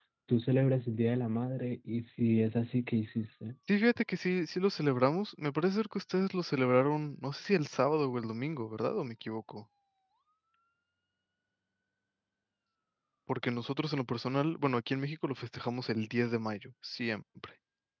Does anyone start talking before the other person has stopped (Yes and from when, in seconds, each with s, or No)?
No